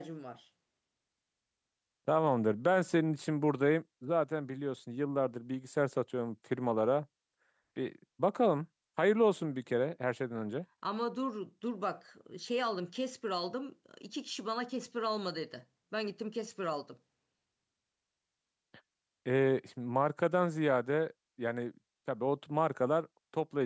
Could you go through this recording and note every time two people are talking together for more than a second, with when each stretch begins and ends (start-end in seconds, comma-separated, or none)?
none